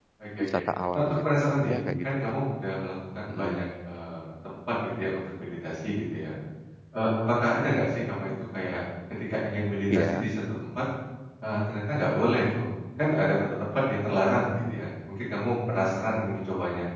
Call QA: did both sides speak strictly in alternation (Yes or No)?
No